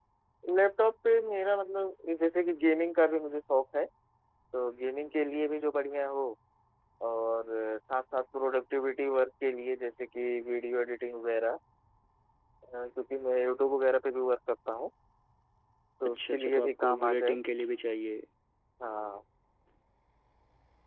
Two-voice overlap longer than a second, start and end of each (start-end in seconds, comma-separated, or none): 16.0-17.4